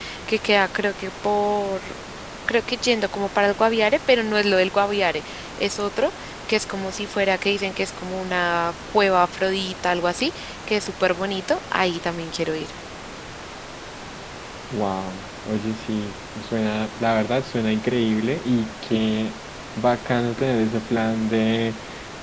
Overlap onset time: none

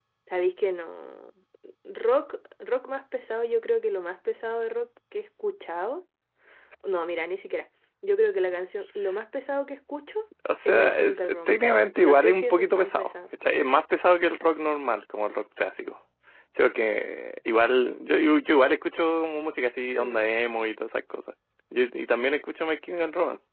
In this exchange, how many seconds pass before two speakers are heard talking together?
10.7 s

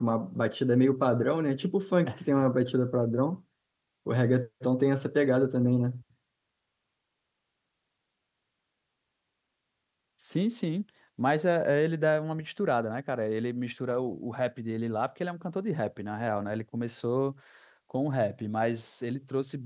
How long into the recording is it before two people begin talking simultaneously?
none

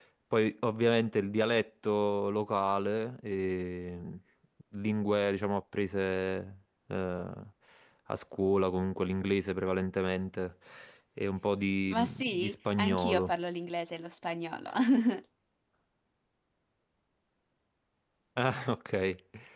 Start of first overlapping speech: 11.9 s

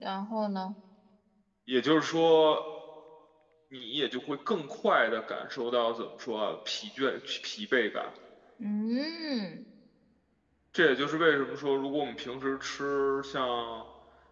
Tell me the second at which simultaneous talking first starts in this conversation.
none

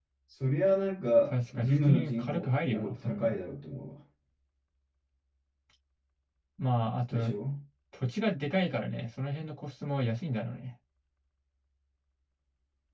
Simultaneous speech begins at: 1.2 s

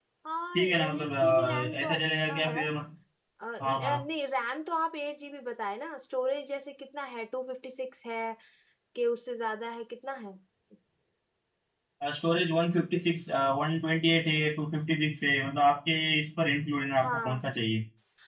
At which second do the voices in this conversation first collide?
0.5 s

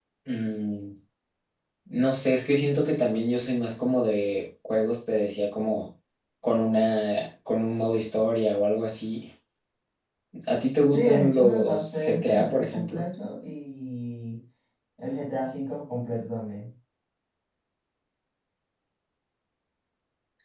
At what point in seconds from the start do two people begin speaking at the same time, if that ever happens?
10.9 s

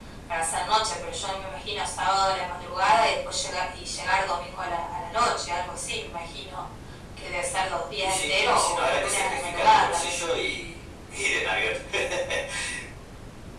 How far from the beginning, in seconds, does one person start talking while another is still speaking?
8.0 s

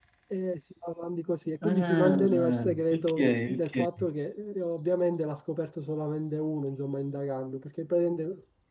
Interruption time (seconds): 1.6 s

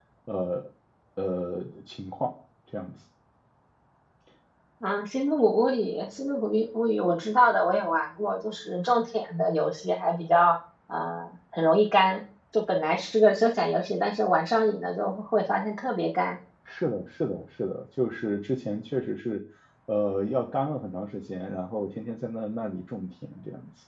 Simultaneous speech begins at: none

